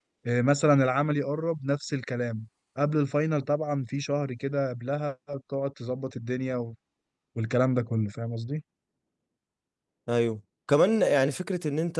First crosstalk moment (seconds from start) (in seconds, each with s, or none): none